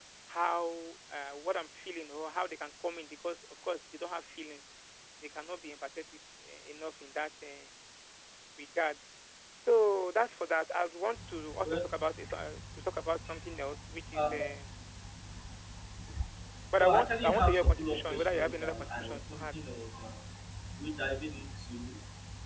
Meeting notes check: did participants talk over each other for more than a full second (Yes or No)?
Yes